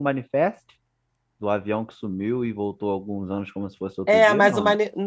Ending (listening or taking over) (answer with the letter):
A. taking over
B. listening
A